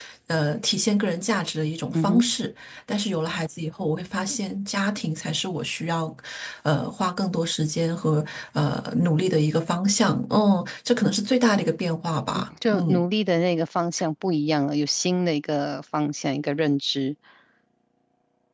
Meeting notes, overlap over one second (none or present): none